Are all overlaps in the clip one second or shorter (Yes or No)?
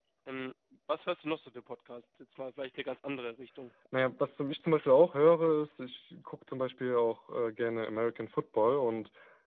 Yes